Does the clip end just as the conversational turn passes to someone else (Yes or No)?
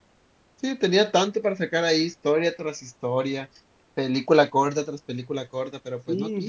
Yes